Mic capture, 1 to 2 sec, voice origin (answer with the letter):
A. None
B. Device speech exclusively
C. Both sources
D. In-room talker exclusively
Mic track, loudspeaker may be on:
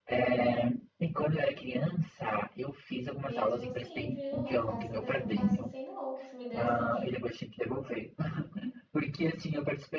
B